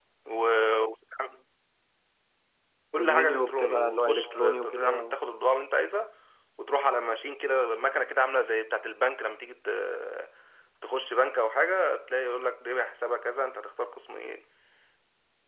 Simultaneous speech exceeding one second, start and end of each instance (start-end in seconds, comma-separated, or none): 3.0-5.2